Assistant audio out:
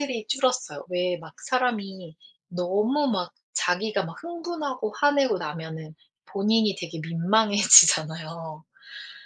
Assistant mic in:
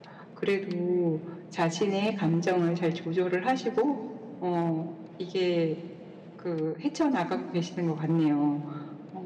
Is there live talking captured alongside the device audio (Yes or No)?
Yes